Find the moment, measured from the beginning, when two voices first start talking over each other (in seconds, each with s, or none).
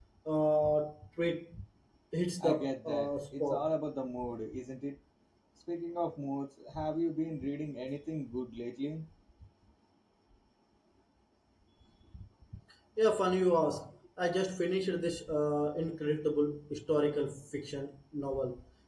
2.4 s